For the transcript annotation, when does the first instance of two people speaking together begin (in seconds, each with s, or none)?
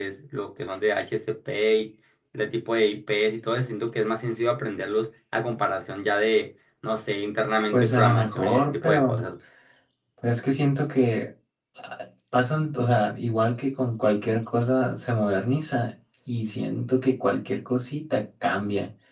7.7 s